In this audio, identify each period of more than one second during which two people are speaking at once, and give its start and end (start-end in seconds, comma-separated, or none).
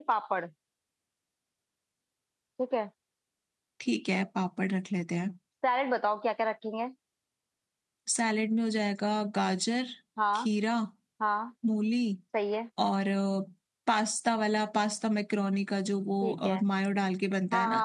none